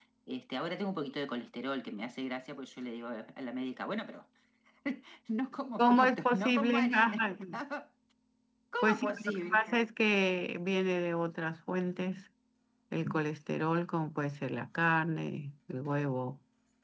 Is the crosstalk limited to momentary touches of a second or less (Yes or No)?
No